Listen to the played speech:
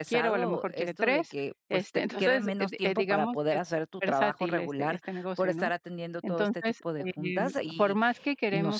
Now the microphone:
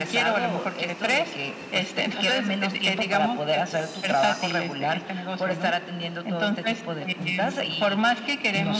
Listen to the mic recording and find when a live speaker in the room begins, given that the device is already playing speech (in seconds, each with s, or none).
none